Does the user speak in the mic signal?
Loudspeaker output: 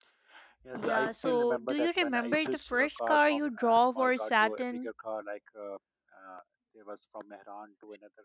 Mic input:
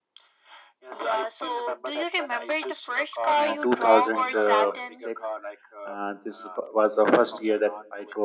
Yes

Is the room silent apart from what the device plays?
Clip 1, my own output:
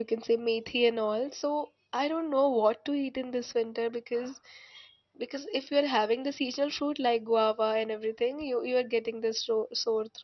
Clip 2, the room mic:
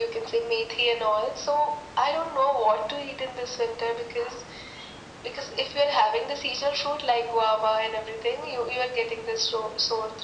Yes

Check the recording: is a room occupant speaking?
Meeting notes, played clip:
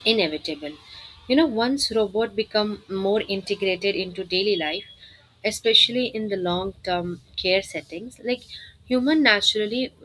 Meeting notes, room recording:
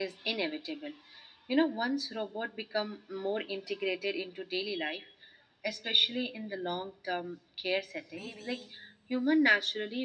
Yes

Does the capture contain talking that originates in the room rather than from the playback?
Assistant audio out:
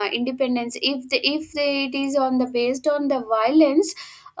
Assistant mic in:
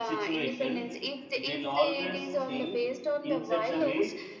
Yes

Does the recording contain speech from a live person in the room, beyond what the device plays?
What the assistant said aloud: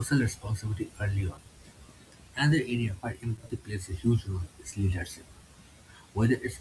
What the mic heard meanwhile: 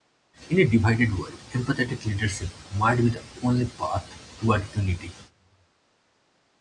Yes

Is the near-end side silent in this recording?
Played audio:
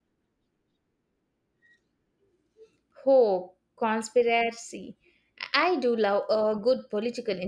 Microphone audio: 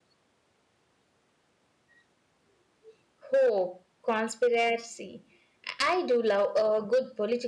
Yes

